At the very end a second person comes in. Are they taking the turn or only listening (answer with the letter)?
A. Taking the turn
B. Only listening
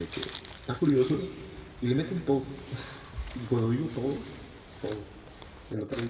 B